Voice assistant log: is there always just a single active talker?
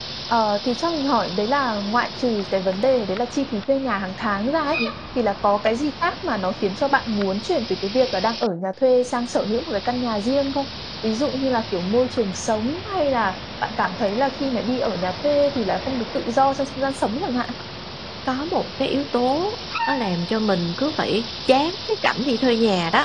Yes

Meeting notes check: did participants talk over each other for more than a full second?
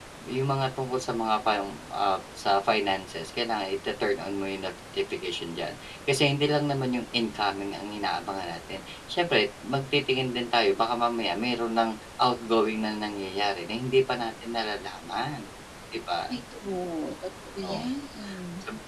No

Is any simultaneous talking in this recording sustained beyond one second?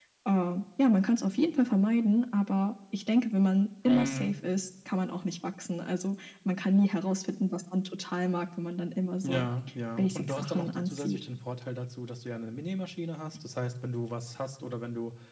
Yes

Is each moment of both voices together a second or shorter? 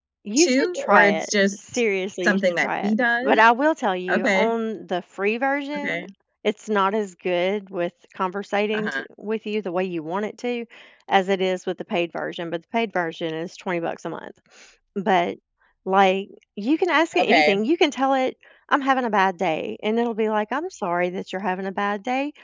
No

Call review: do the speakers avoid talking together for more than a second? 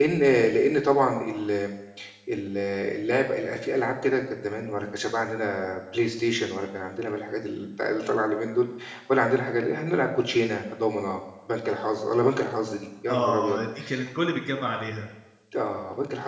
Yes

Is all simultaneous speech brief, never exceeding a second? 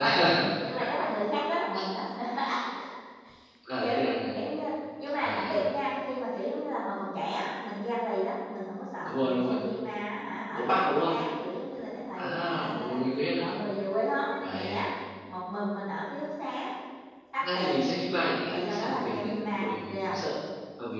No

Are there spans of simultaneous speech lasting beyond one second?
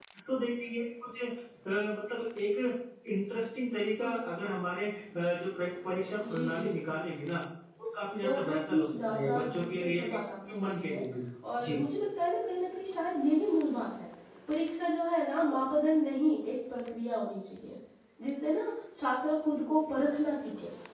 Yes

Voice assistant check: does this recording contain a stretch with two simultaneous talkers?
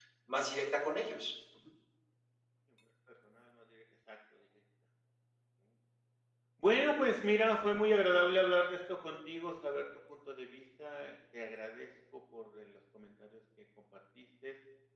No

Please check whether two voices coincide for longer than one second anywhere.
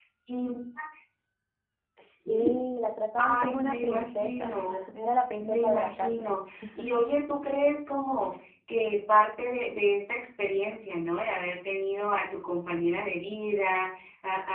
Yes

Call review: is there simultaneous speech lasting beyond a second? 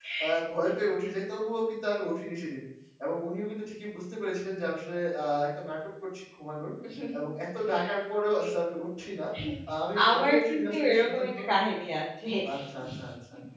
Yes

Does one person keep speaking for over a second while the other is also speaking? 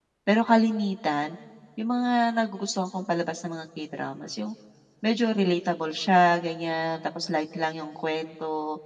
No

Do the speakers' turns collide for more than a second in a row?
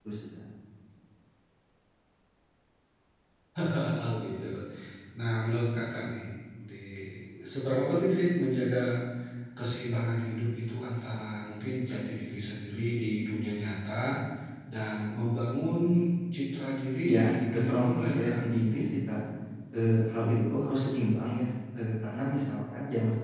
Yes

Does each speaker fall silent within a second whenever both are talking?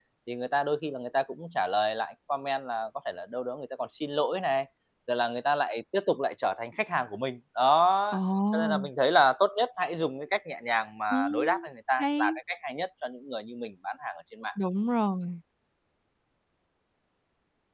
Yes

